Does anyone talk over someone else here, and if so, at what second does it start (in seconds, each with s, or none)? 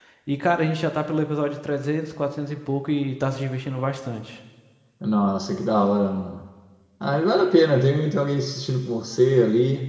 none